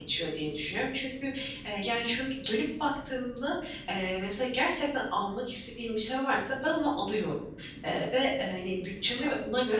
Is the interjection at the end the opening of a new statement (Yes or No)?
No